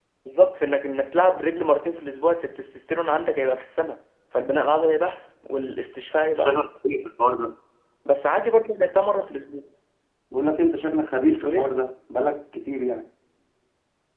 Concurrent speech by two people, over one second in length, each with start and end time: none

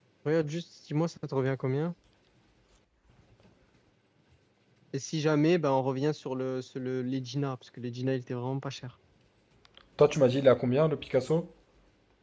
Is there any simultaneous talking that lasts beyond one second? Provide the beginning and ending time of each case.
none

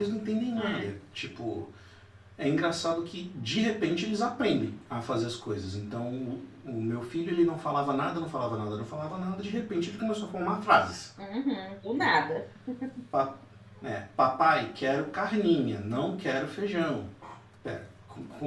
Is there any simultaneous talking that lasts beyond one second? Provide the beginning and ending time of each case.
none

